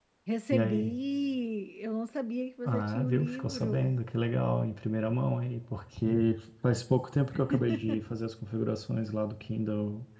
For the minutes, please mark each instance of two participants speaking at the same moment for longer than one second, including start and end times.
2.7-3.9

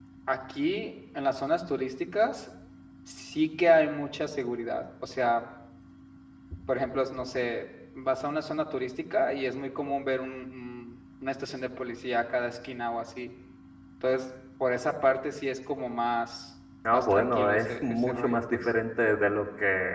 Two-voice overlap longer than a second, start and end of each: 16.9-18.7

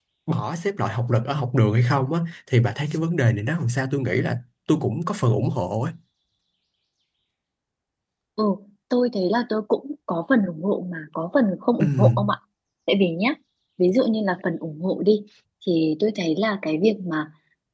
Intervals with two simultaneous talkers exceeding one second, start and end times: none

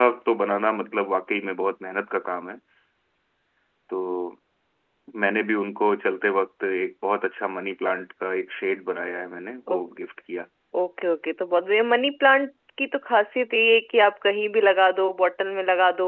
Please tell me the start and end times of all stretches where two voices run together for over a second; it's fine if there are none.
none

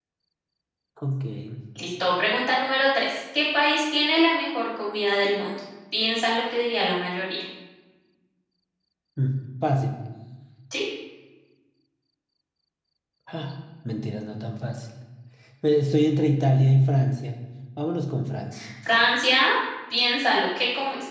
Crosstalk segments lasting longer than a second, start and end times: none

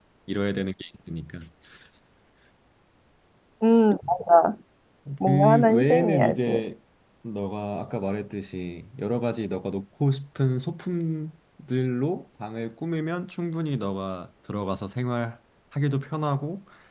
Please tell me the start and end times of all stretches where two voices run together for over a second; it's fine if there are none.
5.2-6.6

